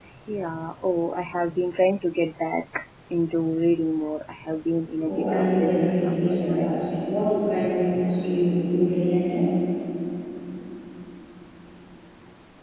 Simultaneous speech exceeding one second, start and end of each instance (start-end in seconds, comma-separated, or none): 5.1-6.7